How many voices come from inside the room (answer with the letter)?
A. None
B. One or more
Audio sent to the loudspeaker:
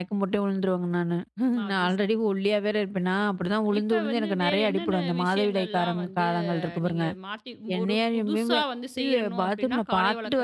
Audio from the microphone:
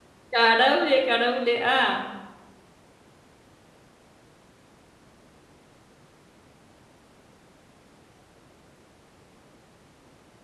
B